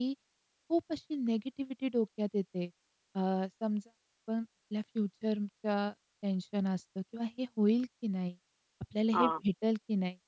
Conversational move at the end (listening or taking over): listening